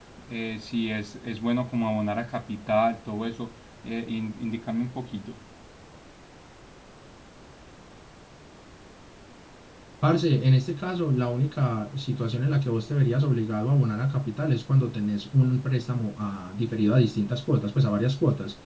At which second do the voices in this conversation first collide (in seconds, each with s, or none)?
none